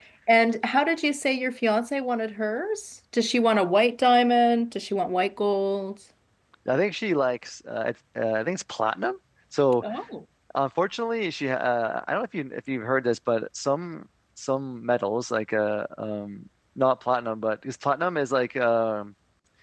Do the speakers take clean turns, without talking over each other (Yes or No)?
Yes